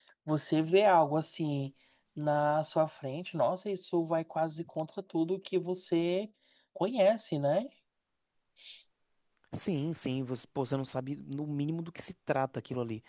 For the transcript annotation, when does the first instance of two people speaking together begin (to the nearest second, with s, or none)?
none